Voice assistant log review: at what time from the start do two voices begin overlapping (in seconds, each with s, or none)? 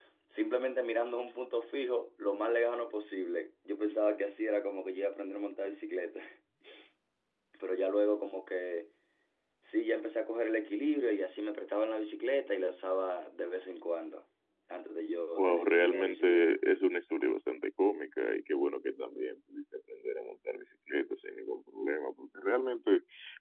15.4 s